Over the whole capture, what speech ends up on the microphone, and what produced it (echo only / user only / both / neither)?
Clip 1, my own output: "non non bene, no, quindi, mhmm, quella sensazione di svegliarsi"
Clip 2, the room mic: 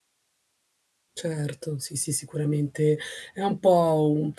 user only